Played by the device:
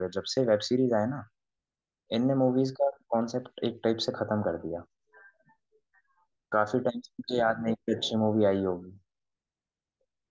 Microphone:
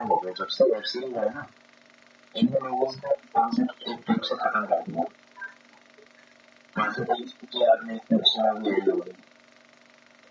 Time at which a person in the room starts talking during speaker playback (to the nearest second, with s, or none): none